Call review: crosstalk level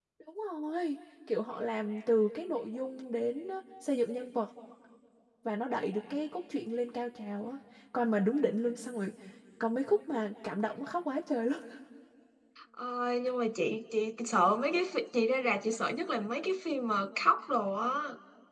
none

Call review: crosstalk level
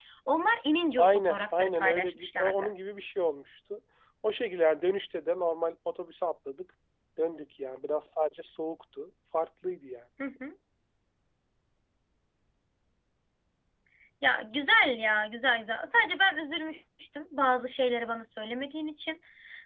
present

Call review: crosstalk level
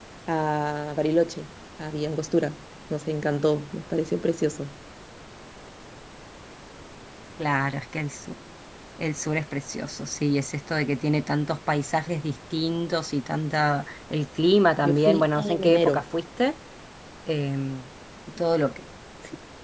present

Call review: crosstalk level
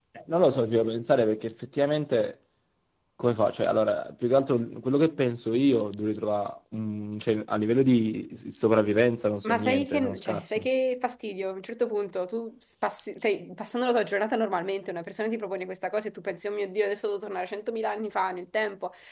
present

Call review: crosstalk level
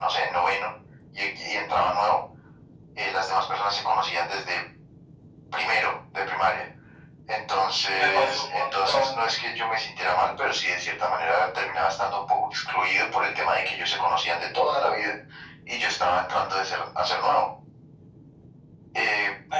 present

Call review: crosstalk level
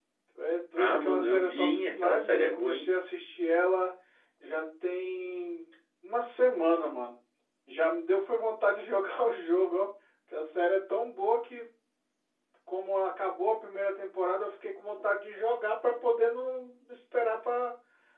present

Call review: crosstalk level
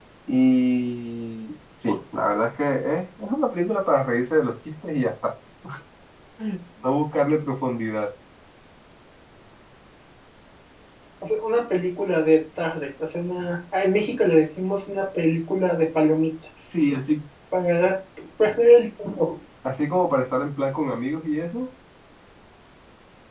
none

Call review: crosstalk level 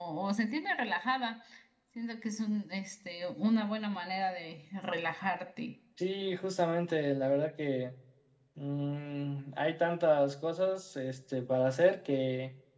none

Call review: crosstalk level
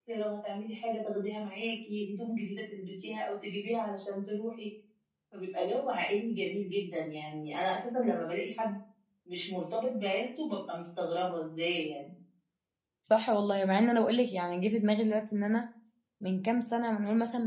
none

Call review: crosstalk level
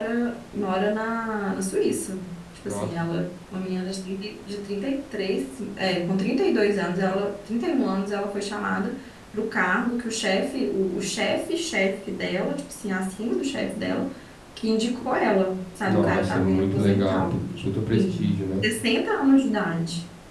present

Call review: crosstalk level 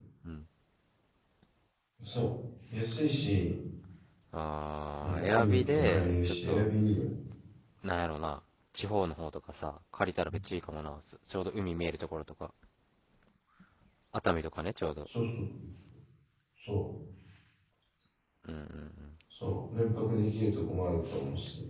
present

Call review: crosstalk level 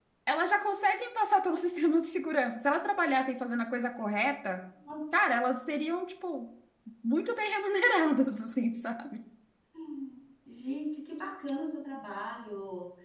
none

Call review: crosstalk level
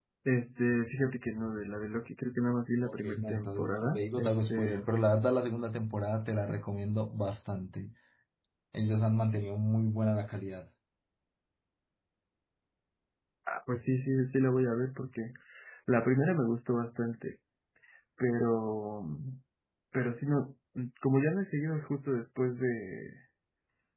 present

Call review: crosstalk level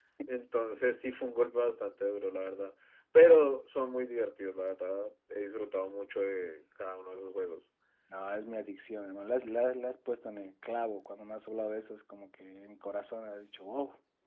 none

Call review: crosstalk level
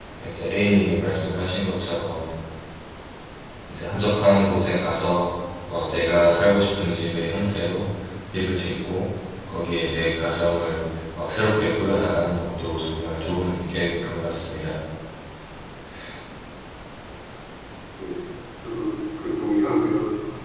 none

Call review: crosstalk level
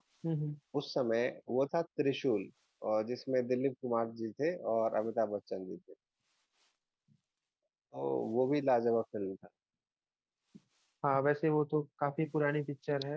none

